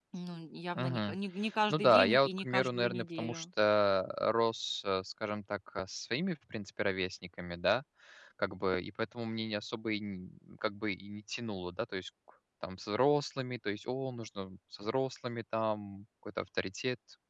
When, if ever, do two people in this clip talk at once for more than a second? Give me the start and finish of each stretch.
1.7-3.4

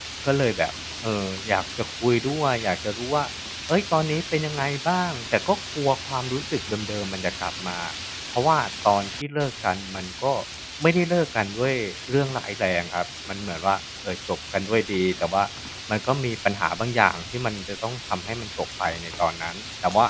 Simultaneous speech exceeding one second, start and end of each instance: none

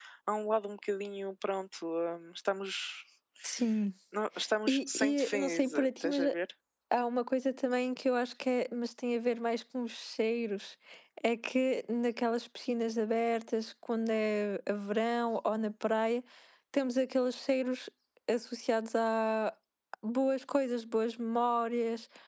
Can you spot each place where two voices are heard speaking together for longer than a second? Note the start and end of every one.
4.7-6.3

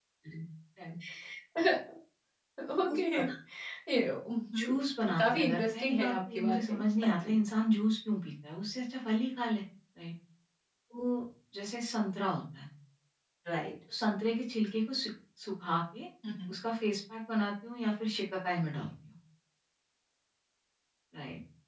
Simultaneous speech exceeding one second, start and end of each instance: 5.2-7.4

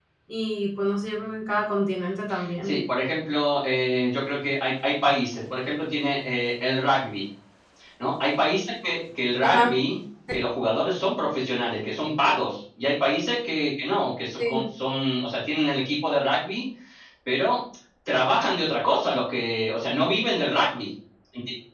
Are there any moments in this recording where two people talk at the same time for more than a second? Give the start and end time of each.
none

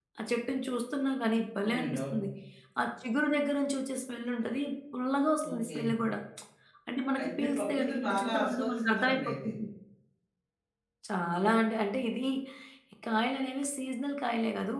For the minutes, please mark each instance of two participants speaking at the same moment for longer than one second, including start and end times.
7.2-9.5

